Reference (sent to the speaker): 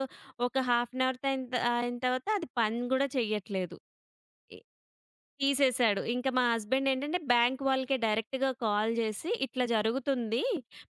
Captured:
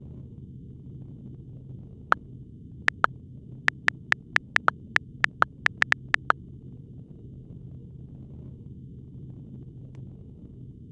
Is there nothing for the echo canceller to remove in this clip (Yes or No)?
Yes